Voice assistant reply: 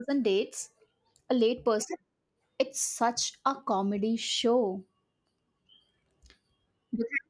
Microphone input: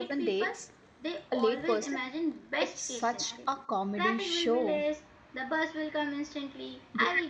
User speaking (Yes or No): Yes